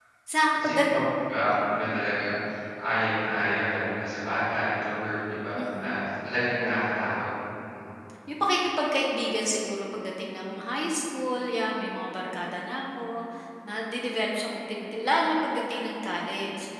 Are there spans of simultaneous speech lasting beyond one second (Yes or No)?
No